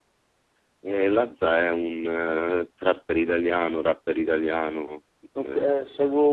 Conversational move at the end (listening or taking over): taking over